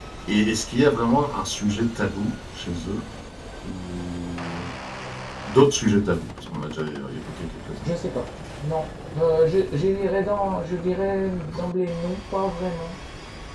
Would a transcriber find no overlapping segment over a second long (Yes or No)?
Yes